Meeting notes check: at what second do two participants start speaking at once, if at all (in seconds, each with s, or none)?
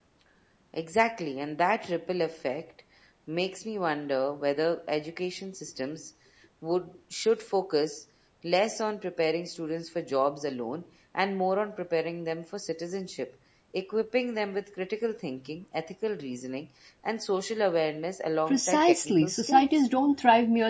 18.5 s